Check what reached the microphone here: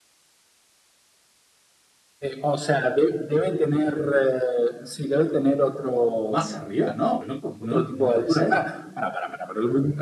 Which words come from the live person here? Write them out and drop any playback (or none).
Más arriba, no, no, no, no puede ser.